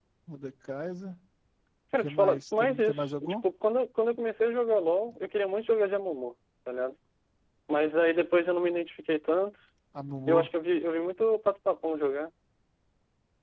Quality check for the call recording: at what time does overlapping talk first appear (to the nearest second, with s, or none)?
2 s